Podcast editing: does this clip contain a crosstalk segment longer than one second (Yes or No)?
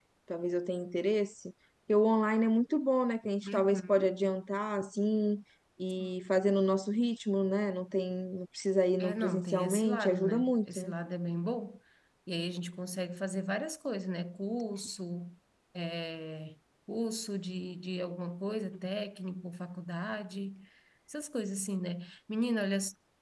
Yes